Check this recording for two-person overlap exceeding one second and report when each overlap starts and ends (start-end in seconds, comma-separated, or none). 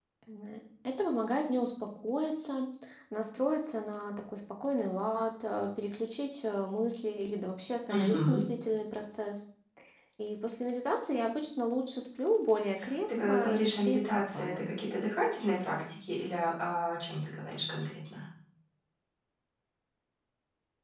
13.2-14.7